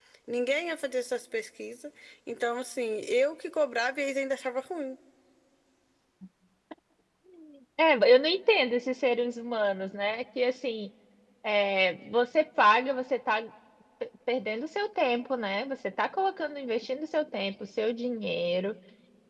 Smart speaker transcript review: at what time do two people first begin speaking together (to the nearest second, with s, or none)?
none